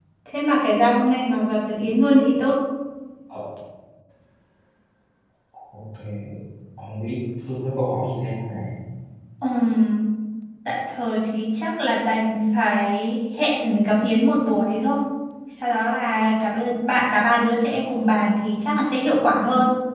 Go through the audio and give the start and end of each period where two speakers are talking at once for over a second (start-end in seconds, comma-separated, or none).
none